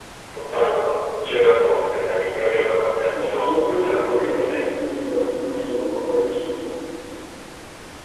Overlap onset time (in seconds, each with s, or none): 3.2 s